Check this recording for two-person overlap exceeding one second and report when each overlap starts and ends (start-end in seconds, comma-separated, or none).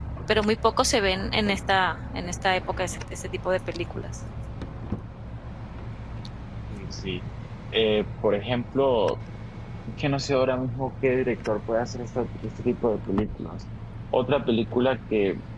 none